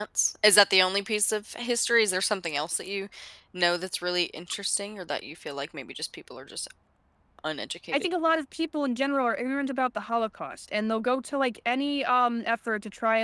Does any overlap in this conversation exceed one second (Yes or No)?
No